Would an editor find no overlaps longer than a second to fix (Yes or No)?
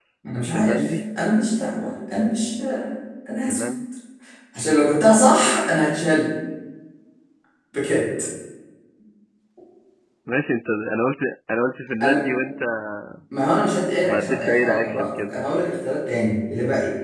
No